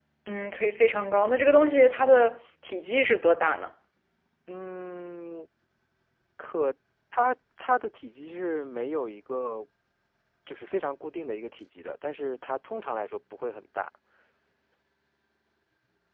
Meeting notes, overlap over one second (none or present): none